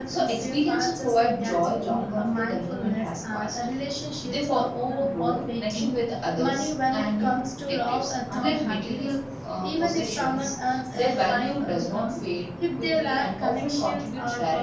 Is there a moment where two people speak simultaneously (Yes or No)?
Yes